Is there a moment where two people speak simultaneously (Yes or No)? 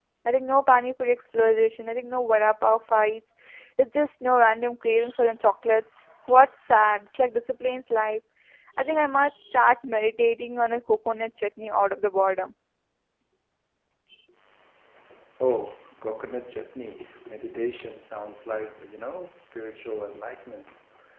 No